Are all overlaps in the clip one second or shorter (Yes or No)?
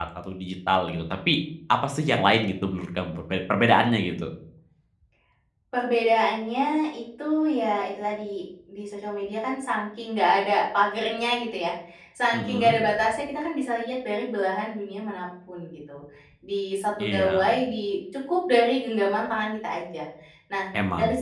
Yes